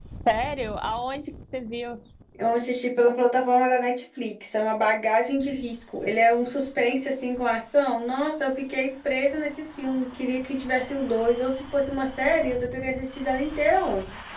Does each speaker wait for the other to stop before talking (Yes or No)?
Yes